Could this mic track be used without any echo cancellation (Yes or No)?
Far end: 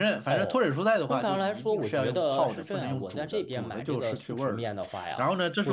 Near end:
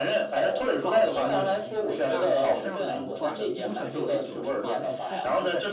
No